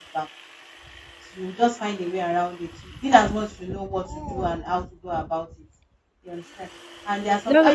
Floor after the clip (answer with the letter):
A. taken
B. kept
B